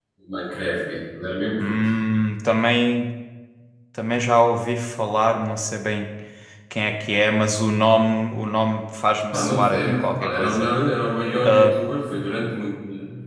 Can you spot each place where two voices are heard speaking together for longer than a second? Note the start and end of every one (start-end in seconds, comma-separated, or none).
9.3-10.7